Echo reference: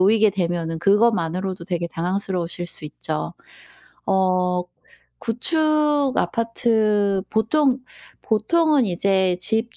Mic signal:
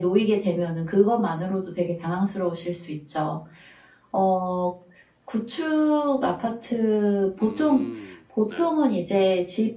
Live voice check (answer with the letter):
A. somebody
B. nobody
A